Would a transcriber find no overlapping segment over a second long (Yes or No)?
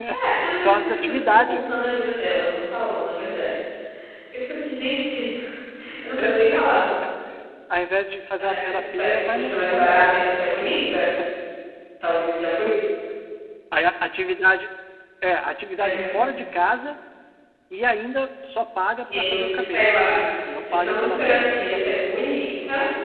No